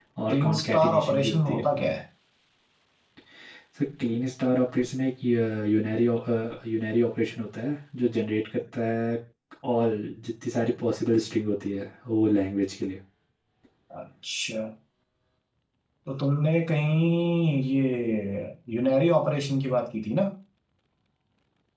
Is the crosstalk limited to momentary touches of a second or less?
No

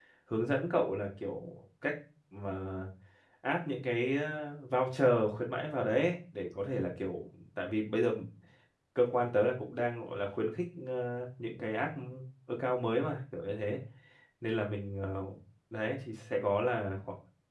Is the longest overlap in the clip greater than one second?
No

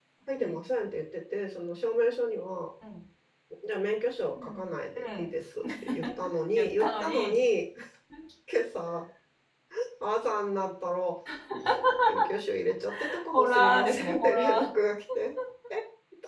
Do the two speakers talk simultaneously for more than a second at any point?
Yes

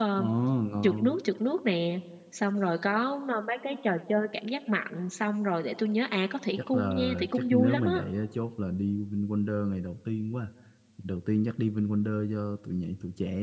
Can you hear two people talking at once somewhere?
Yes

